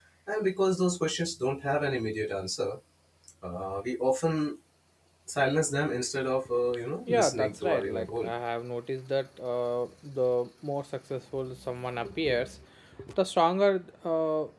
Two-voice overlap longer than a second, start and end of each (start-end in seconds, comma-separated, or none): 7.1-8.3